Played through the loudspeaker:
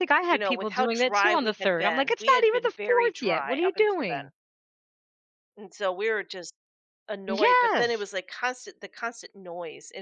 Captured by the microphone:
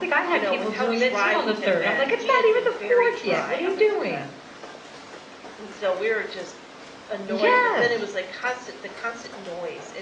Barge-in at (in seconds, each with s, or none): none